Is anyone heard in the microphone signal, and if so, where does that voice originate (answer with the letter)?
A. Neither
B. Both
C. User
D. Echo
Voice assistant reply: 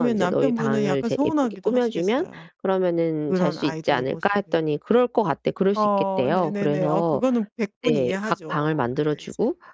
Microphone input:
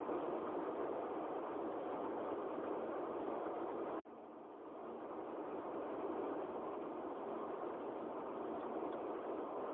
A